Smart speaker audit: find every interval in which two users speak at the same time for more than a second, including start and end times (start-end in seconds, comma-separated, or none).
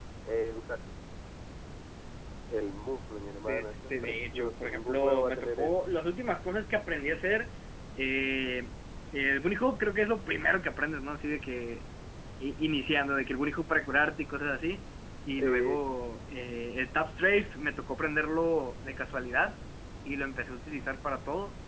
3.5-5.9